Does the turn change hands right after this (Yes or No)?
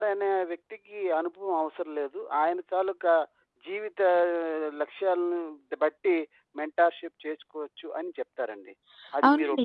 Yes